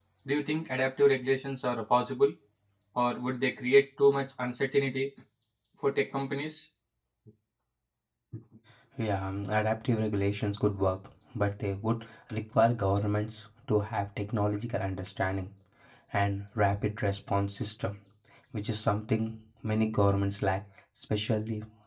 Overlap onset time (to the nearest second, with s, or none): none